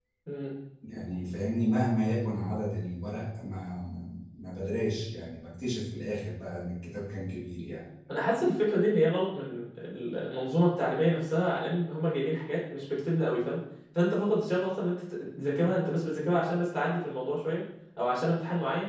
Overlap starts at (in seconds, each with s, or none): none